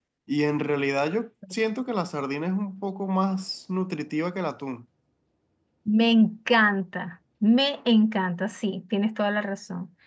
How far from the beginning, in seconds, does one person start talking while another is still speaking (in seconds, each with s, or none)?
none